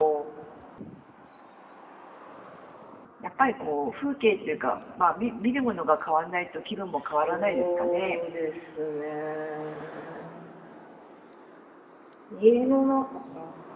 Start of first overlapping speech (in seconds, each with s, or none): 6.9 s